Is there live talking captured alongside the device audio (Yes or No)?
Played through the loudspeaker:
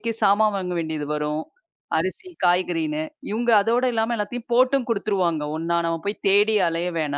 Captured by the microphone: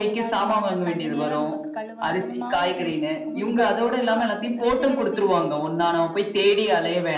Yes